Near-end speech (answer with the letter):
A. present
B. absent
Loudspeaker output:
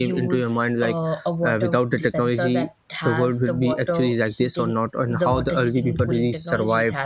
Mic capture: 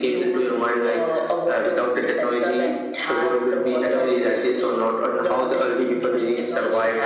B